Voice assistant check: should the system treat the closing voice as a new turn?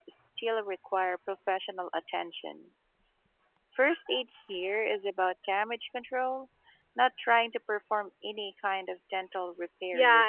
Yes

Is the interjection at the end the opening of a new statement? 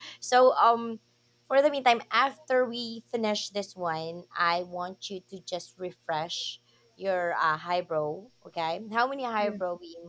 No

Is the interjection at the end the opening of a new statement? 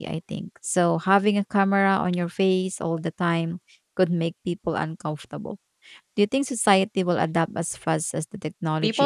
Yes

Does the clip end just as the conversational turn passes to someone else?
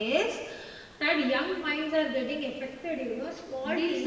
Yes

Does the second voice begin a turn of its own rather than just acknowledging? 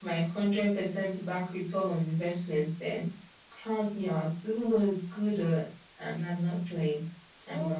Yes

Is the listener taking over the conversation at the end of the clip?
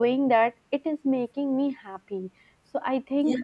No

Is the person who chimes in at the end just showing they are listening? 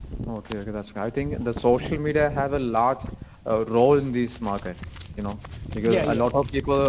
Yes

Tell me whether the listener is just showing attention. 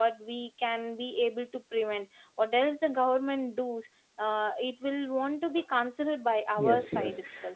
No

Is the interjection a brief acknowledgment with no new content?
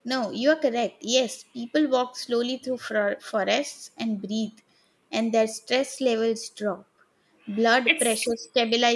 Yes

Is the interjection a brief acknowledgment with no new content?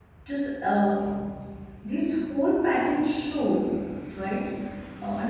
Yes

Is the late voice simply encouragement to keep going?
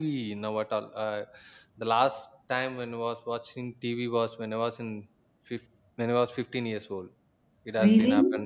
Yes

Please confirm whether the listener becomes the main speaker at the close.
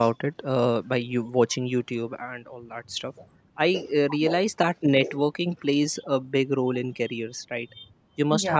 No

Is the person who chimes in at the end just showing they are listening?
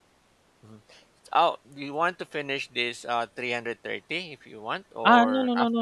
No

